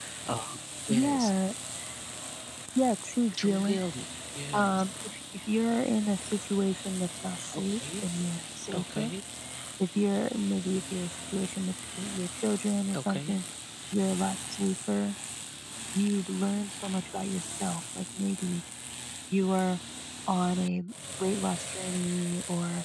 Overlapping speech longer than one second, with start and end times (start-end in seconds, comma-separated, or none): none